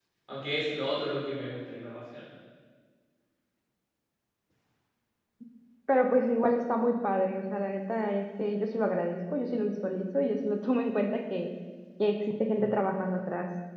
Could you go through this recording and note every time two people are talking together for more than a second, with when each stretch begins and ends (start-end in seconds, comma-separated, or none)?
none